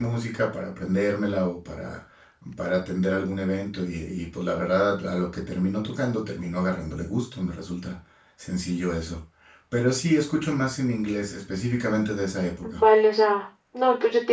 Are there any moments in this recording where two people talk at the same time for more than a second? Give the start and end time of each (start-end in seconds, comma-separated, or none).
none